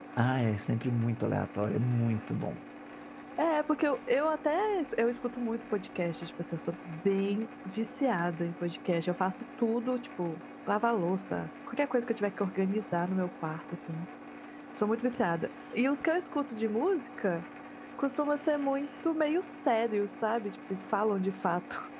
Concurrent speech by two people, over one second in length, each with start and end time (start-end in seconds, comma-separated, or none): none